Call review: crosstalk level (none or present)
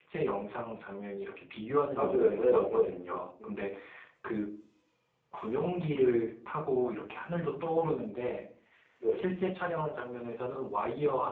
present